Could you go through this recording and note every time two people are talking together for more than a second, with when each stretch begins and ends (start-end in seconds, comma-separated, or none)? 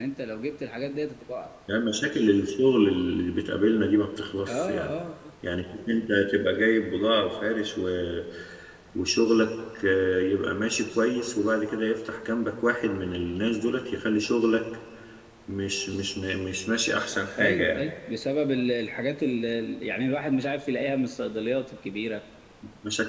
none